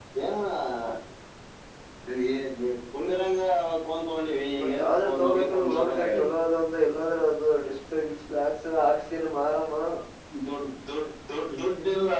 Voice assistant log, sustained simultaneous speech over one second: present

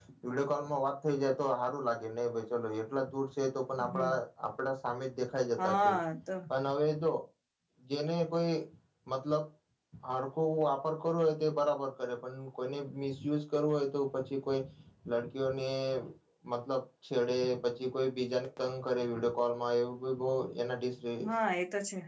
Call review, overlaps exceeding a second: none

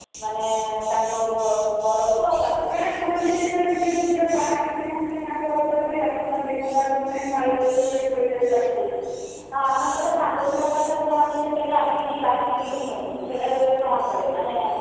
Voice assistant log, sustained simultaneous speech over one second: none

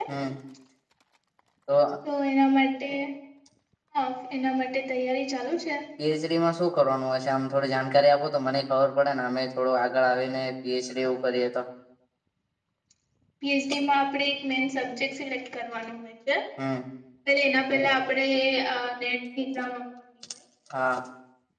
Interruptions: none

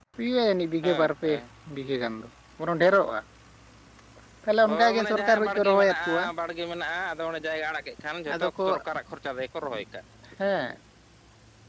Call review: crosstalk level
present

